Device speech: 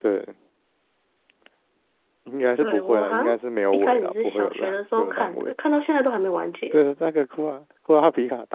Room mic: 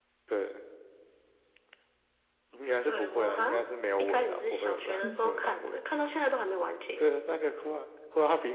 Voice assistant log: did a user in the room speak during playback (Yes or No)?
Yes